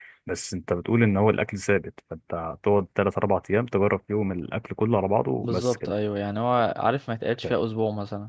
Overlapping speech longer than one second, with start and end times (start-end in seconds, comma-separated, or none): none